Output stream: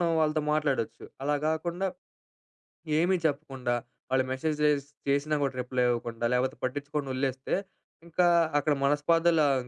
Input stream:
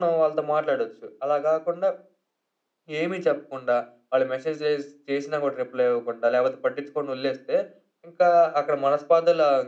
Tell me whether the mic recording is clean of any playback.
No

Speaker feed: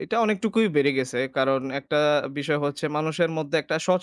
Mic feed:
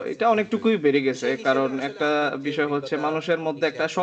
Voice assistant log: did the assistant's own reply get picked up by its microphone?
Yes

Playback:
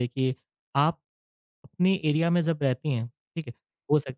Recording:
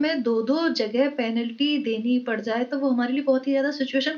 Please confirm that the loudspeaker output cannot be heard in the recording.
Yes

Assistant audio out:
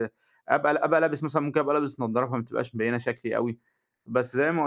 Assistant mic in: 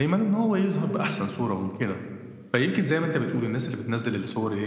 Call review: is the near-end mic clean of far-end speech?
Yes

